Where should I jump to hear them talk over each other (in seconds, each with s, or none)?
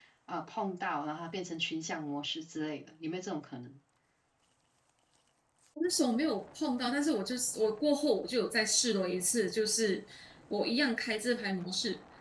none